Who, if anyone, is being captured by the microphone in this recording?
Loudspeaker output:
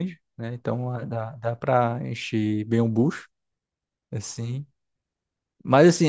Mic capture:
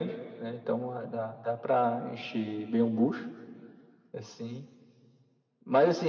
echo only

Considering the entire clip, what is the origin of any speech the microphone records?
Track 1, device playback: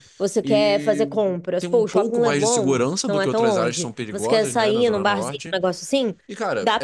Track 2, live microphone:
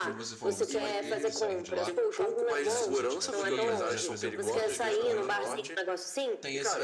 both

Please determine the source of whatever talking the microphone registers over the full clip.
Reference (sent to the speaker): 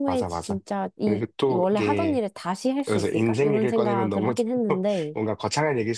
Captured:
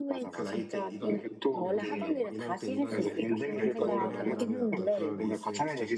both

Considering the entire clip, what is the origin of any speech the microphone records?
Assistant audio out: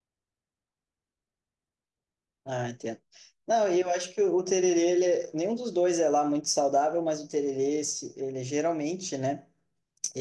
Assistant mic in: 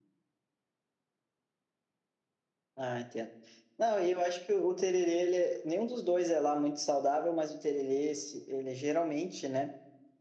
echo only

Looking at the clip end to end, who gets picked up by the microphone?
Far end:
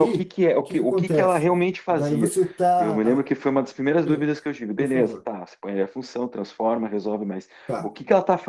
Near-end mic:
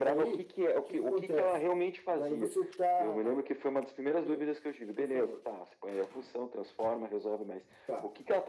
echo only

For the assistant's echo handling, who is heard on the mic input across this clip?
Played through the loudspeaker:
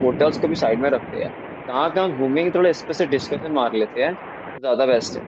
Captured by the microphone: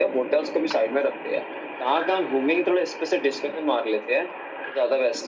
echo only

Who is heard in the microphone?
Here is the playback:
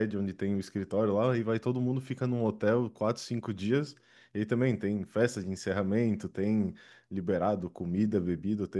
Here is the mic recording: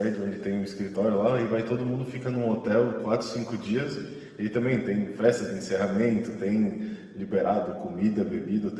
echo only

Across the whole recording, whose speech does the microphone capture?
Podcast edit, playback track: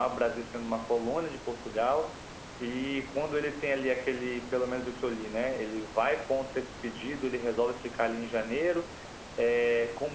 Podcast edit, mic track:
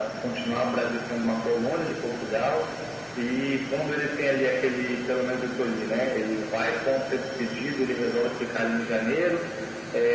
echo only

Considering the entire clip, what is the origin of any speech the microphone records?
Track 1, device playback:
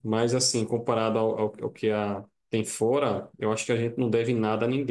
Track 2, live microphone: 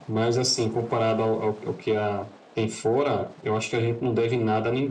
echo only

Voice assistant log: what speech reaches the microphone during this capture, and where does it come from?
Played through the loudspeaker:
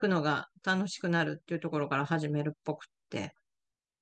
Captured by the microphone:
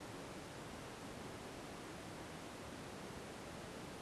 neither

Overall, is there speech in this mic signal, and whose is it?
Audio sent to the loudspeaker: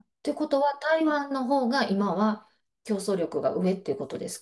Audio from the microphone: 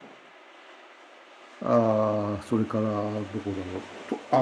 user only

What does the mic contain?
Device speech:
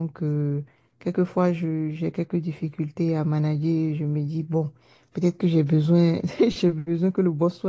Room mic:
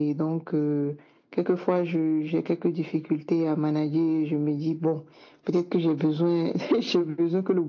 echo only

